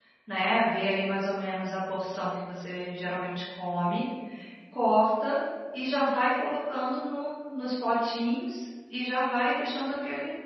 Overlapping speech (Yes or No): No